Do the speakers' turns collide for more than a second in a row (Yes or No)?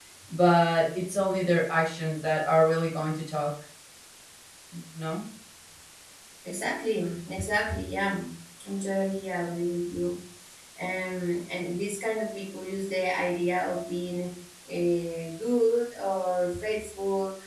No